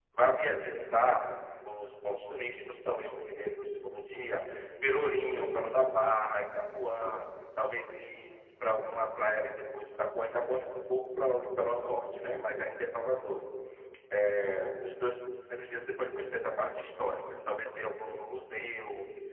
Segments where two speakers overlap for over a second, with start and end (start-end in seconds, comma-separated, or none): none